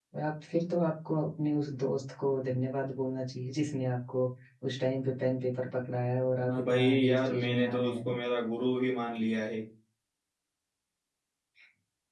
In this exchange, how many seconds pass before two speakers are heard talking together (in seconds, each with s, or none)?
6.5 s